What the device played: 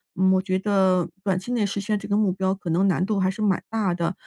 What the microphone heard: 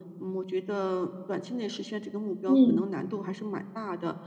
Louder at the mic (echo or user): user